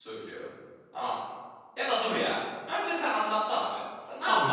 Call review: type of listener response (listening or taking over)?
taking over